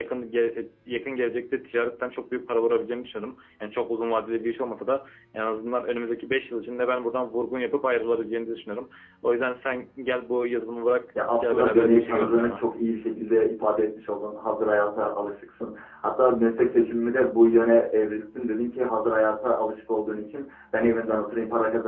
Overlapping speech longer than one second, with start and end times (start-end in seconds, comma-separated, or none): 11.3-12.6